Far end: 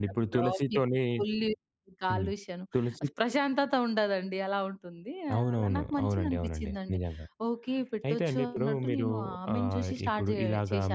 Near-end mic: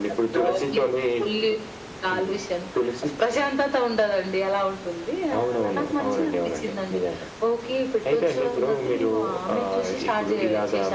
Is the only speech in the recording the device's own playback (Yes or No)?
Yes